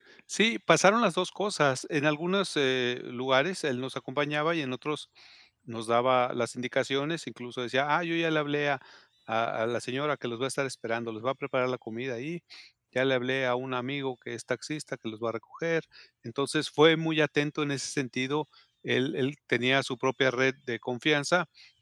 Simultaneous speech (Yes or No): No